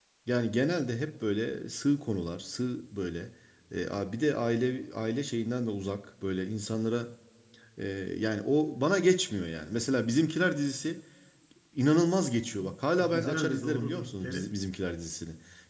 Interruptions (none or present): present